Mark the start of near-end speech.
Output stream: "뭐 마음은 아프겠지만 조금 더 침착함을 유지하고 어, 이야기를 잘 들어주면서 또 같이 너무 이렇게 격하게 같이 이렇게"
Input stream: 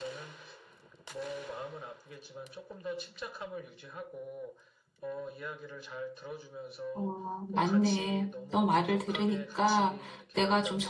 6.9 s

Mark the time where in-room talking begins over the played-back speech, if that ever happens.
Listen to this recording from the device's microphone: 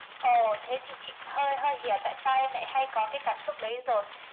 none

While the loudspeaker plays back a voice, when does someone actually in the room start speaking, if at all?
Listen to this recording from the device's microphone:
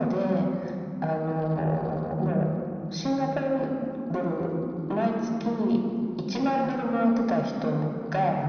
none

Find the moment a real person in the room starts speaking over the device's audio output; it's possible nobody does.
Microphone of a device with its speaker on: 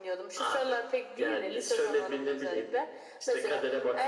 none

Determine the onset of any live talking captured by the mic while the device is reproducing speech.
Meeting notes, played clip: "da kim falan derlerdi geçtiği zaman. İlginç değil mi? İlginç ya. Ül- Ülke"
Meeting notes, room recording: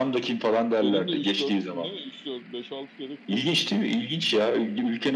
0.8 s

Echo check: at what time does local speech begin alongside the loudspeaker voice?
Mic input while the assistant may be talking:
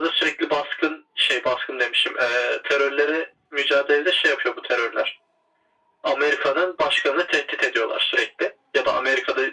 none

